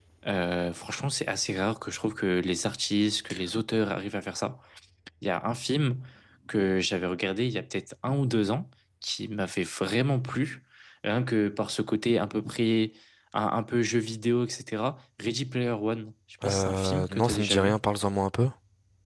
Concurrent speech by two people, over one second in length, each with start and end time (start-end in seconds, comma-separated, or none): 16.4-17.7